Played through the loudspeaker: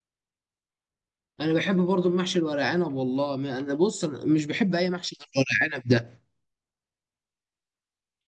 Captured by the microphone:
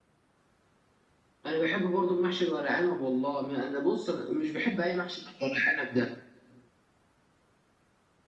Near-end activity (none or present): none